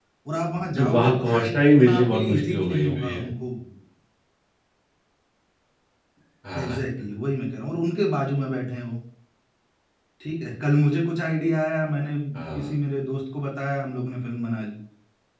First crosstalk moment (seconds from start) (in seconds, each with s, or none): 0.7 s